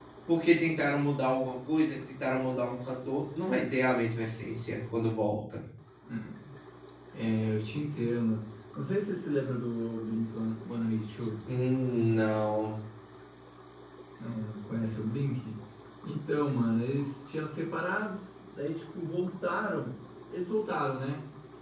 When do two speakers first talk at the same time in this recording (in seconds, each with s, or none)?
none